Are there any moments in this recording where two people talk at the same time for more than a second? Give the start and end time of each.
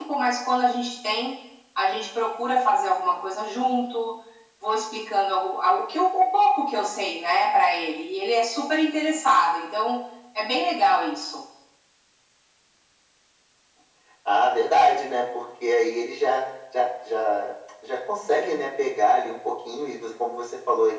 none

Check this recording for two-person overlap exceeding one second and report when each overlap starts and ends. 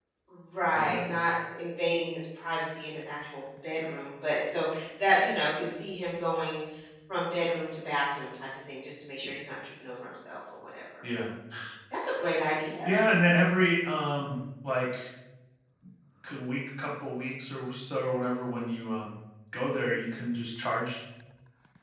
none

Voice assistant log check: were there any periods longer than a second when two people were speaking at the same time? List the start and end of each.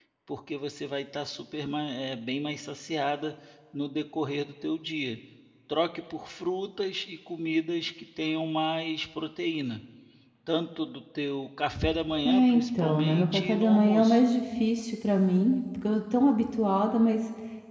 12.2-14.2

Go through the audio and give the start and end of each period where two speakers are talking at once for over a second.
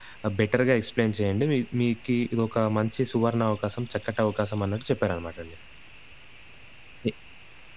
none

